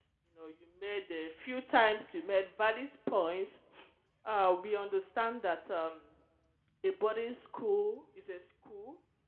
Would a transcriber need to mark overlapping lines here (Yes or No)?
No